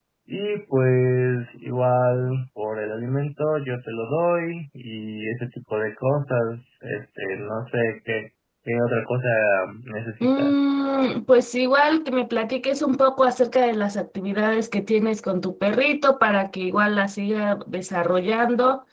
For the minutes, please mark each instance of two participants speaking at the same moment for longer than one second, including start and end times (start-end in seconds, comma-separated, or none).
none